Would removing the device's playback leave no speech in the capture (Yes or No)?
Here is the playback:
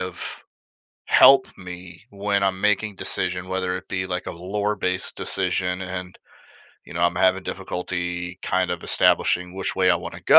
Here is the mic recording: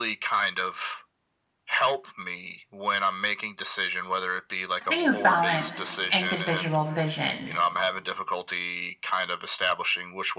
No